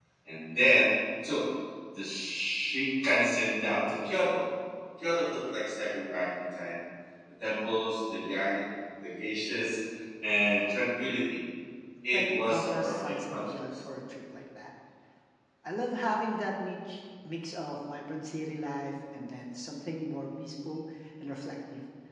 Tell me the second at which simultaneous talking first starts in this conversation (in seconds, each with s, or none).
12.1 s